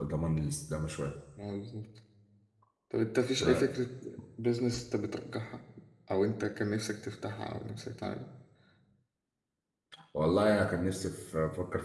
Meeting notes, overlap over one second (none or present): none